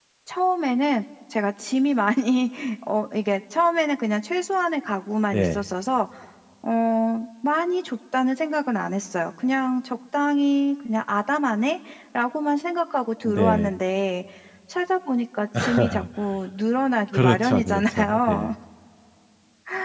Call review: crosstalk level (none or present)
present